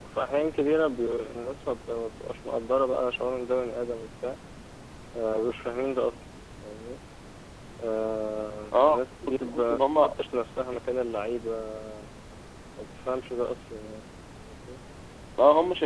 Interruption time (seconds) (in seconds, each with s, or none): 8.7 s